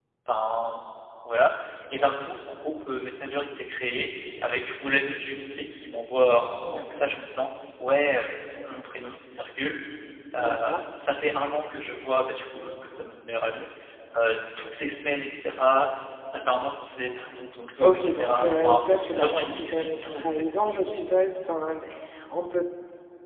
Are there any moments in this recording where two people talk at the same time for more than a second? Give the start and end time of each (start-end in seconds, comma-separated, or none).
17.8-20.3